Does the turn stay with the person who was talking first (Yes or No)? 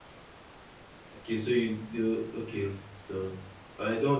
Yes